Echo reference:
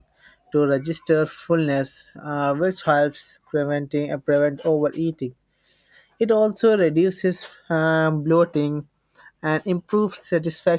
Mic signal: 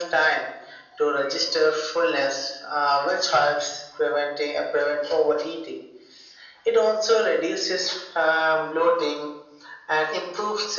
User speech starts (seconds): none

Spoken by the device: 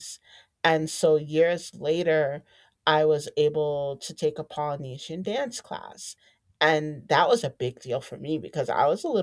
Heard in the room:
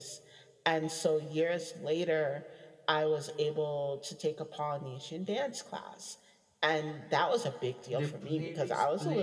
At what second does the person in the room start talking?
7.9 s

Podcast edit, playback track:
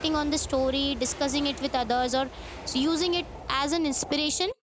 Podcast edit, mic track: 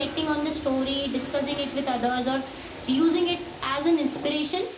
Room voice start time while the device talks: none

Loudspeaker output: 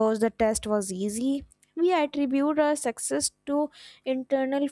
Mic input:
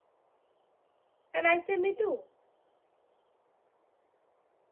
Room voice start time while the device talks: 1.3 s

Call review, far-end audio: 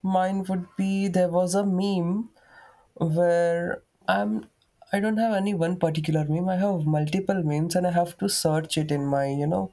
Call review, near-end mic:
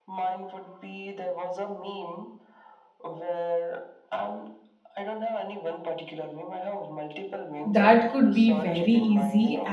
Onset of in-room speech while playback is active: 7.6 s

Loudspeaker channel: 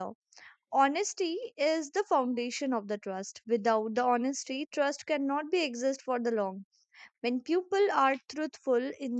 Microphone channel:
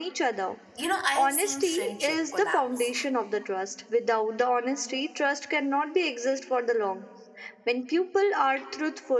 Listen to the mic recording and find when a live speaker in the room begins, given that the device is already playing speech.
0.8 s

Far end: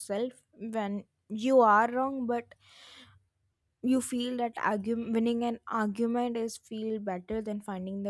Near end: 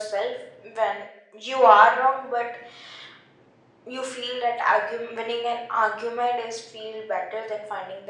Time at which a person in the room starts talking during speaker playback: none

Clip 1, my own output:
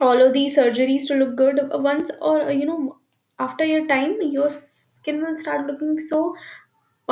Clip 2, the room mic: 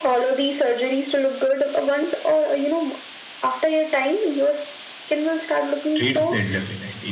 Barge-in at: 5.9 s

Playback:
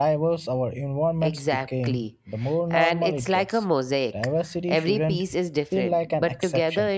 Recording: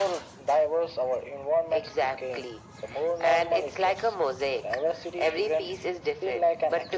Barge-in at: none

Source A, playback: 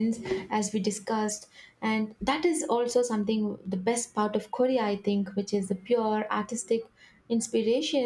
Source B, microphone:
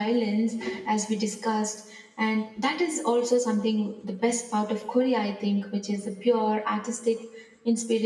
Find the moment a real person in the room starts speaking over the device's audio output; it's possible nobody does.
none

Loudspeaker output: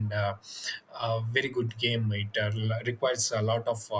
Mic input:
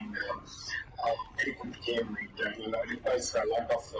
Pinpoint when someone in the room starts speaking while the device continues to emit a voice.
none

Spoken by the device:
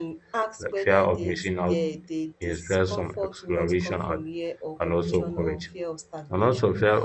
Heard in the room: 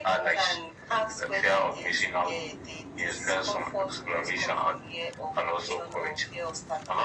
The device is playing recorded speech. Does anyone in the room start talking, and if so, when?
none

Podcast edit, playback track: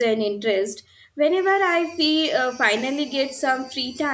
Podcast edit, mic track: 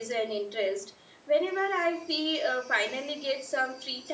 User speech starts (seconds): none

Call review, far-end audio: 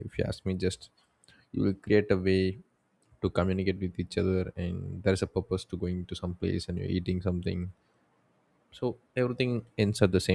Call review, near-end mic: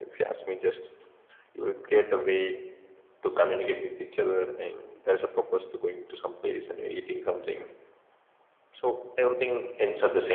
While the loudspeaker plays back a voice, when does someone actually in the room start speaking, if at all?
none

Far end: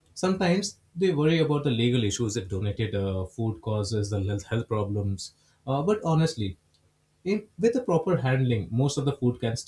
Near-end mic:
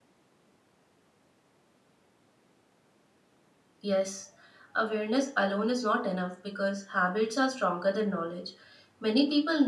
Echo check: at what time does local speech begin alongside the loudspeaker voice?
3.8 s

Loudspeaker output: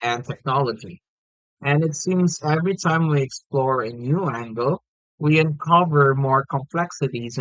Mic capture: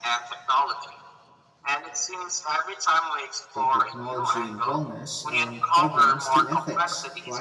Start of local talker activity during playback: 3.5 s

